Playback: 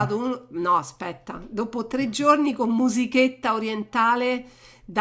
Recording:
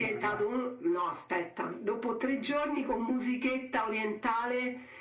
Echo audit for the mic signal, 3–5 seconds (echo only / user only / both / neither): echo only